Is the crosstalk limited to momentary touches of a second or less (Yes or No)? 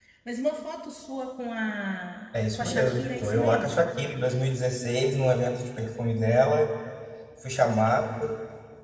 No